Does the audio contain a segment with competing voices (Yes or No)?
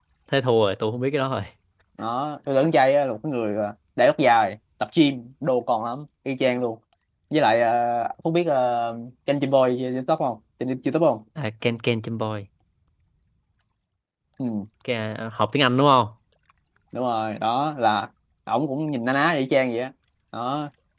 No